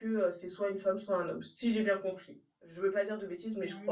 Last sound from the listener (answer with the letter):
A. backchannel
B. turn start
B